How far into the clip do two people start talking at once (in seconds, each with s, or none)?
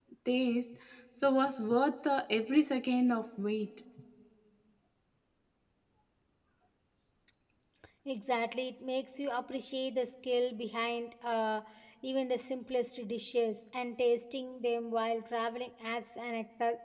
none